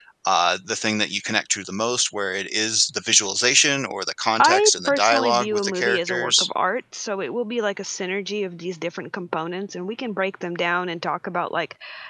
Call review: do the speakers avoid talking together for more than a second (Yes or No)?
No